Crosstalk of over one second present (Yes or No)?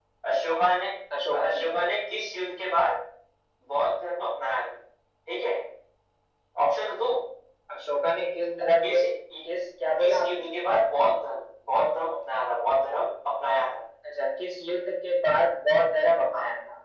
No